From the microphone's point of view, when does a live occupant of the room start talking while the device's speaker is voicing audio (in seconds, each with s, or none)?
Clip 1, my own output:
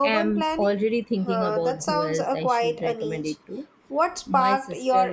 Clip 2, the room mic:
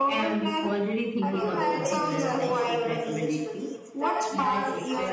1.2 s